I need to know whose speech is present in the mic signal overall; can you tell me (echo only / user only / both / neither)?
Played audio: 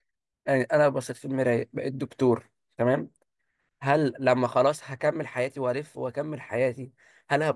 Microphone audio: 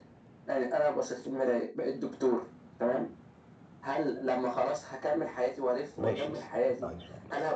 both